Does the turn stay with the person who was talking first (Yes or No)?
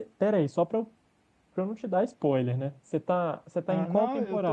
No